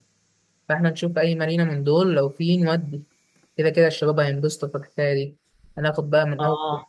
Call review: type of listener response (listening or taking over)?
listening